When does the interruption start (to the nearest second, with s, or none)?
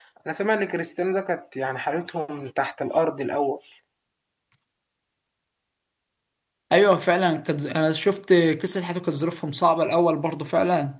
none